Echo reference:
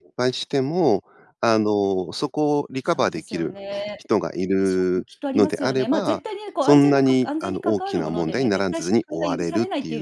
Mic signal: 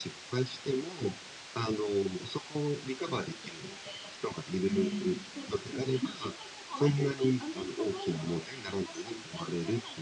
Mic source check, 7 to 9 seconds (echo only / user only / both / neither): echo only